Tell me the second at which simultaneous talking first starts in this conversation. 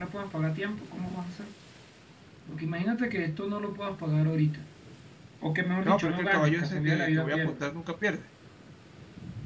6 s

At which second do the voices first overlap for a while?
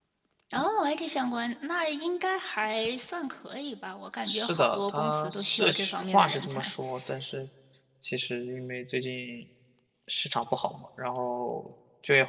4 s

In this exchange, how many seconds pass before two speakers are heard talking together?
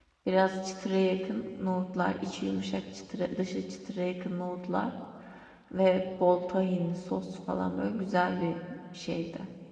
none

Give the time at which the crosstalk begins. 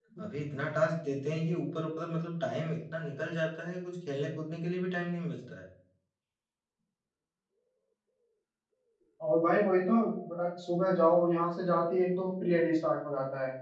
none

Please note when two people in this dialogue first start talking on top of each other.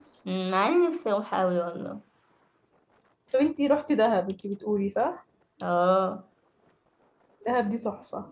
none

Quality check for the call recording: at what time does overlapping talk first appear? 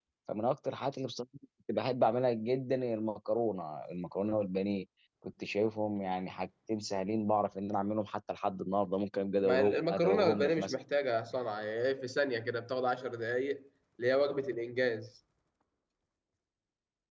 9 s

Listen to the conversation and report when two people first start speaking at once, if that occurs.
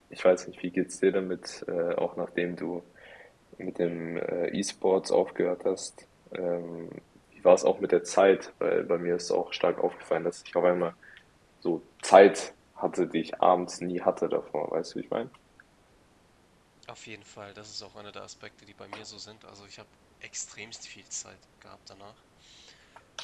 none

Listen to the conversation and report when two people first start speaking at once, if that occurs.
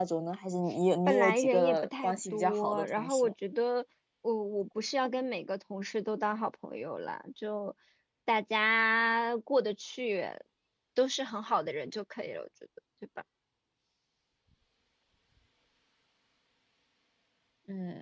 1 s

